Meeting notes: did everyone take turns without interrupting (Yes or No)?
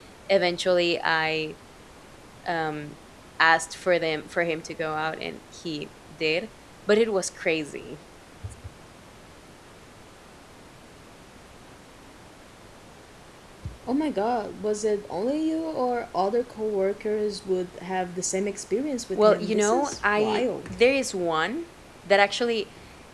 No